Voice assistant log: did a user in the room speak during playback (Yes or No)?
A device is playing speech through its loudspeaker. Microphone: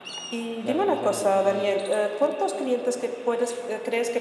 Yes